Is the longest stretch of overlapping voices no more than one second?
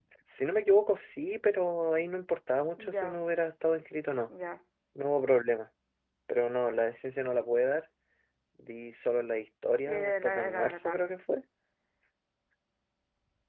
No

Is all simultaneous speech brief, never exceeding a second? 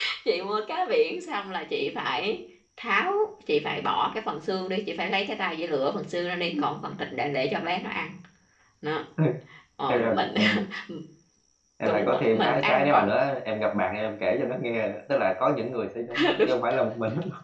No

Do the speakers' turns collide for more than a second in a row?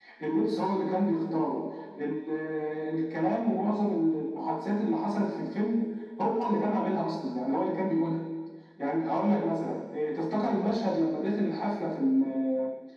No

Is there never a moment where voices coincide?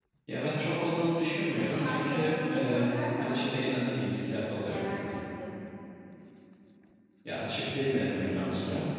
No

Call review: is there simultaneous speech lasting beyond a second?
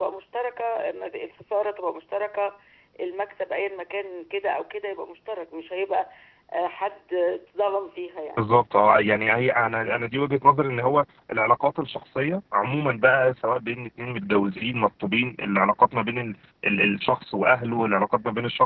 No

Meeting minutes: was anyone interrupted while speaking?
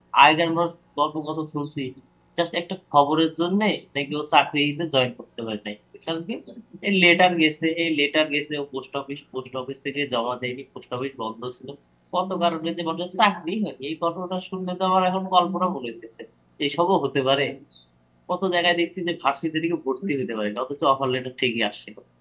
No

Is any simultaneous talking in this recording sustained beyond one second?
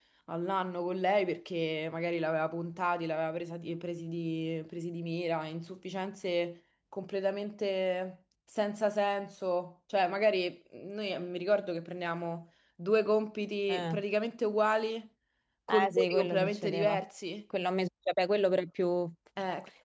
Yes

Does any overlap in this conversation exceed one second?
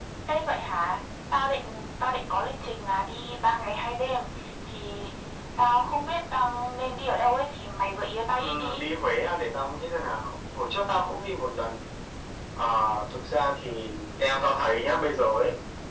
No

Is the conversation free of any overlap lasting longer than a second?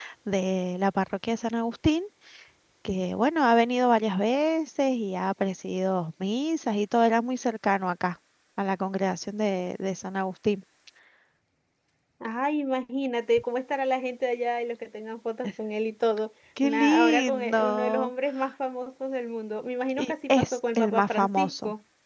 No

